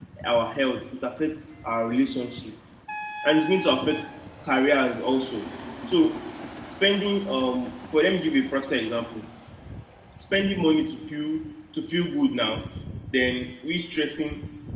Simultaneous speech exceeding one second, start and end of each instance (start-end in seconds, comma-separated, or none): none